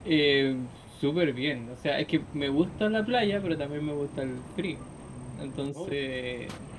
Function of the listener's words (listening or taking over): listening